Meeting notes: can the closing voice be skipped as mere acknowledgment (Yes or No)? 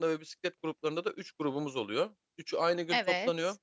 Yes